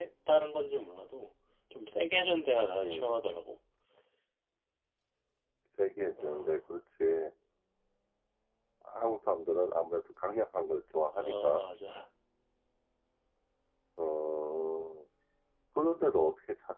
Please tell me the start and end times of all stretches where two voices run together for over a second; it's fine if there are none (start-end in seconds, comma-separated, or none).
none